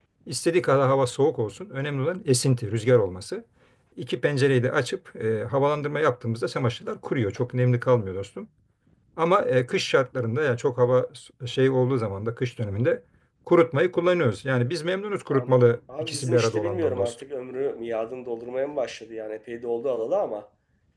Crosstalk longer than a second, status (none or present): present